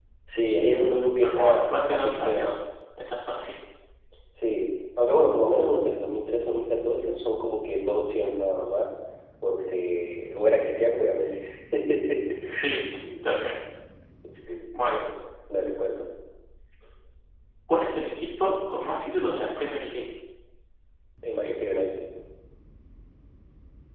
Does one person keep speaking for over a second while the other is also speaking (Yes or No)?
Yes